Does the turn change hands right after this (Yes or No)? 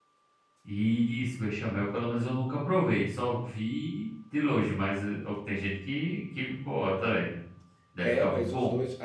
Yes